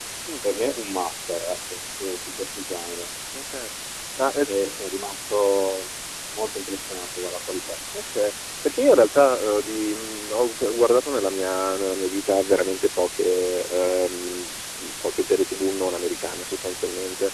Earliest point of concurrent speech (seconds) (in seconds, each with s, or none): none